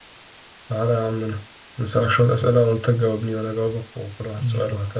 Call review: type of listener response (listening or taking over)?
taking over